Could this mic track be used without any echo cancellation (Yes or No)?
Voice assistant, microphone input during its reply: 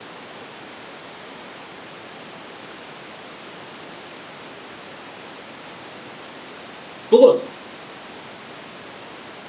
Yes